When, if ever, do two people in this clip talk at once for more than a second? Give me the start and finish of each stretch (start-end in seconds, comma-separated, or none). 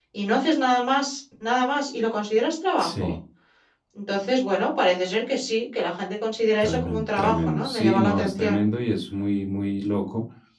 6.6-8.6